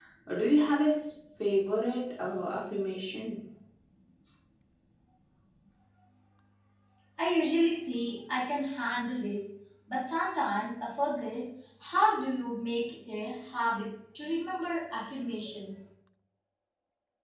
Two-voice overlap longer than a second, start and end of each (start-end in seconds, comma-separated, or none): none